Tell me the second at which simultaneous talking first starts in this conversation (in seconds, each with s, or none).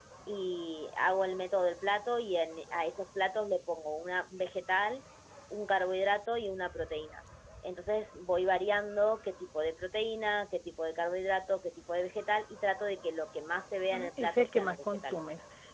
13.9 s